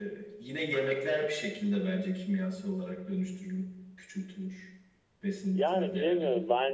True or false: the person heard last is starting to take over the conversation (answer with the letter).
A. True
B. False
A